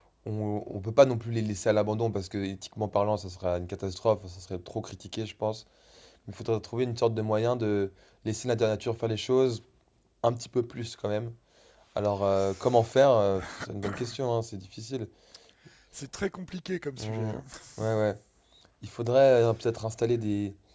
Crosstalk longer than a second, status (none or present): none